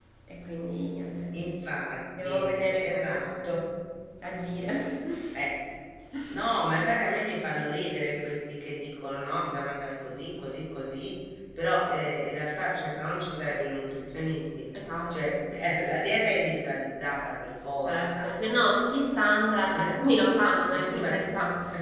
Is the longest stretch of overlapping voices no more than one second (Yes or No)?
No